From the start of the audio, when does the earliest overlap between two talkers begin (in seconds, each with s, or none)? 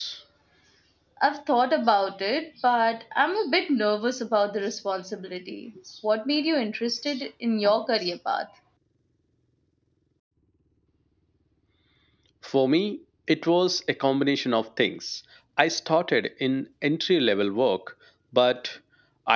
none